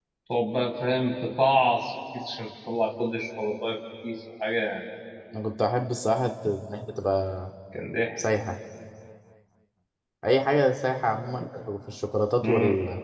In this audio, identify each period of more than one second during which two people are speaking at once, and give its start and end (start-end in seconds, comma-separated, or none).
none